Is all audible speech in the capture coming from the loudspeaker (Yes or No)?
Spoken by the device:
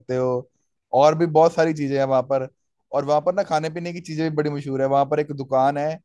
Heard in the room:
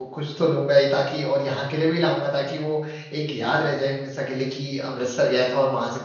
No